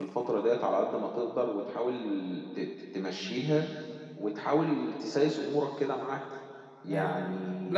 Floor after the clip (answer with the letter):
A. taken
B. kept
A